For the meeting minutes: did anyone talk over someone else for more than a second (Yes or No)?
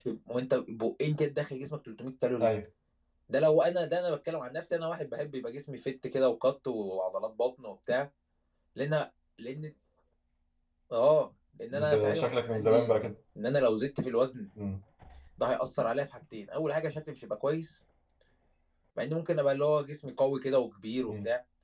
Yes